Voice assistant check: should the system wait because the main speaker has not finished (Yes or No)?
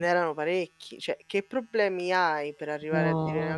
Yes